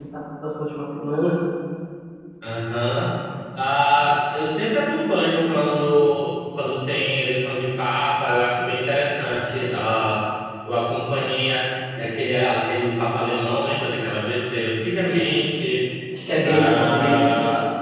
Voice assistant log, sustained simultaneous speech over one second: present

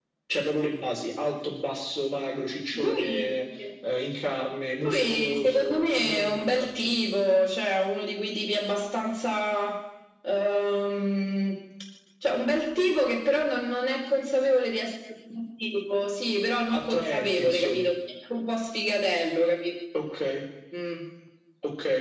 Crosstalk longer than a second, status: present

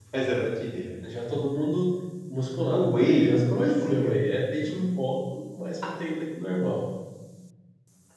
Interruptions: present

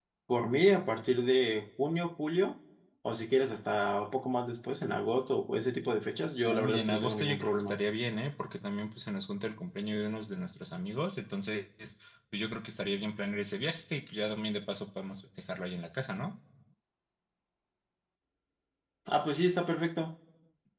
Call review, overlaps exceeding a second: present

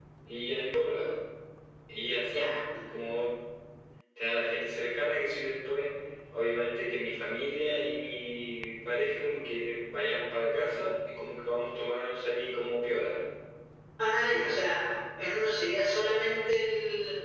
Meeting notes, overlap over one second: none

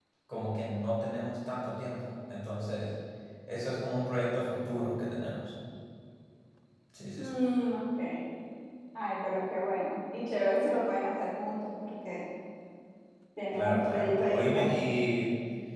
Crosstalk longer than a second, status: present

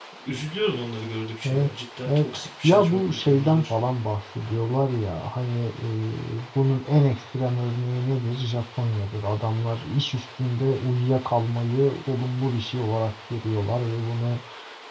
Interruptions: present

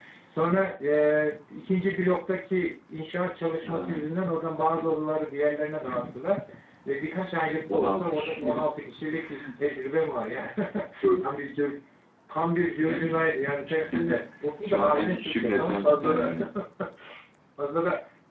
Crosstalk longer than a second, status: present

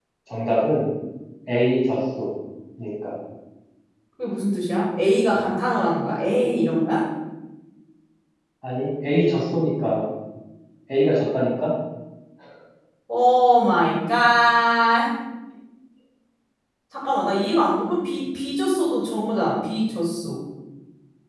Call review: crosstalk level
none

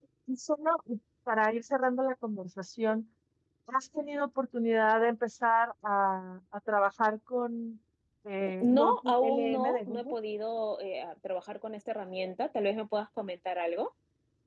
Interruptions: present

